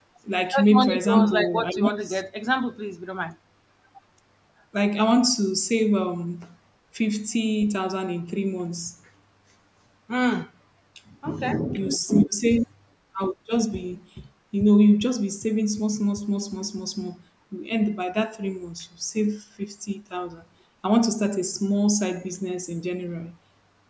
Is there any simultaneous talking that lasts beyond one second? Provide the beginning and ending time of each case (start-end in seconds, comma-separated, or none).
0.5-1.9